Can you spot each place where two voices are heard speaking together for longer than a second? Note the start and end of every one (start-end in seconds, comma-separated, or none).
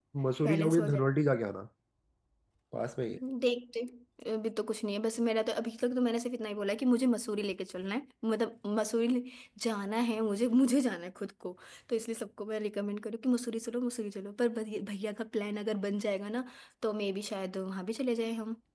none